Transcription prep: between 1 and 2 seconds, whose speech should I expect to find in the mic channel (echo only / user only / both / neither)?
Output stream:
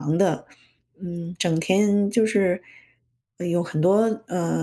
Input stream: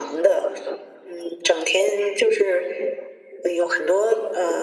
echo only